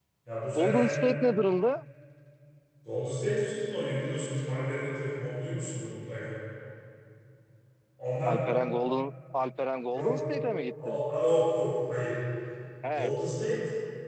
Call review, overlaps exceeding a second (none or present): none